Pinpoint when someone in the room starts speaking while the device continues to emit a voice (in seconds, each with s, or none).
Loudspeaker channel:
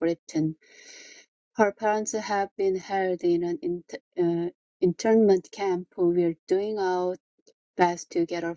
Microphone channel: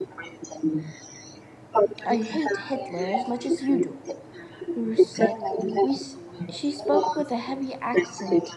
2.0 s